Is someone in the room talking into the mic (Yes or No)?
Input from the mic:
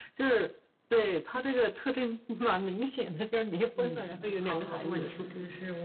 Yes